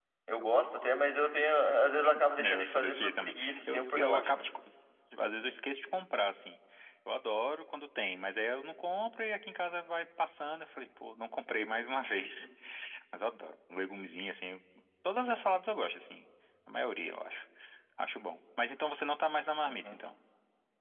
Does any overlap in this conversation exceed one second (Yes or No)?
Yes